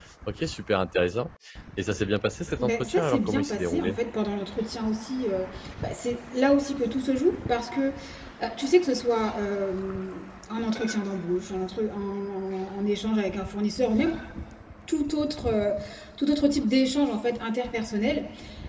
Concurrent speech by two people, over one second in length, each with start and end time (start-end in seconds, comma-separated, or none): 2.6-4.0